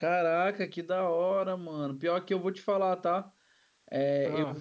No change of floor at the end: Yes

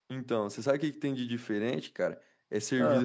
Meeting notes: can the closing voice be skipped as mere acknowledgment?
Yes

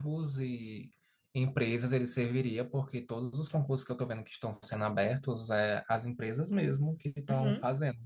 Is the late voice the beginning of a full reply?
No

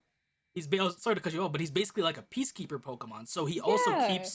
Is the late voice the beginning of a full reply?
No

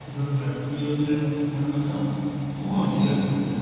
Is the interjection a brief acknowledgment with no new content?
Yes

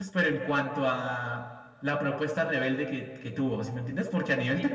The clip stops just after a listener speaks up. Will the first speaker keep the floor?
Yes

